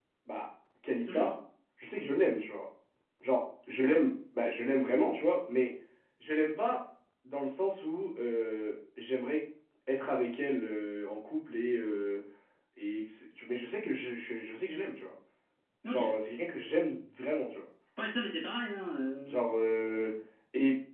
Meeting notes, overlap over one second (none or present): none